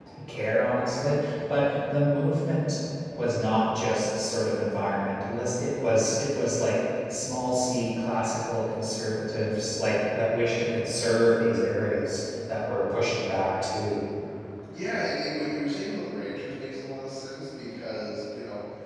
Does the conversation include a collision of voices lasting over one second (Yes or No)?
No